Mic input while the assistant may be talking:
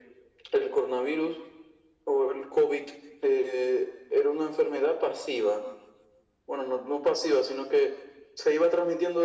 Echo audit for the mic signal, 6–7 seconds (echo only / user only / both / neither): echo only